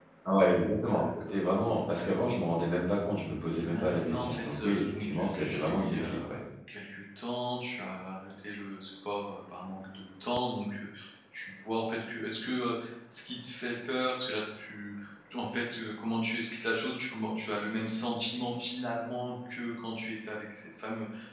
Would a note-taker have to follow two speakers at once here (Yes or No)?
Yes